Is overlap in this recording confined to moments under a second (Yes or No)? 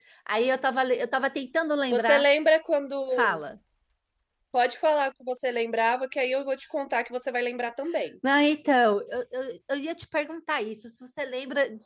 Yes